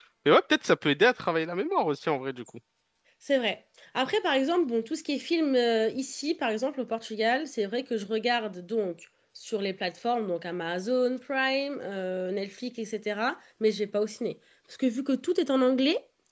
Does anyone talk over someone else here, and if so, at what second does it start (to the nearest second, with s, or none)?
none